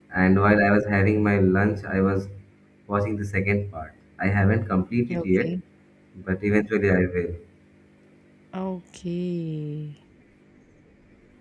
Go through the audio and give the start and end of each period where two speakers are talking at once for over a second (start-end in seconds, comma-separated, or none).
none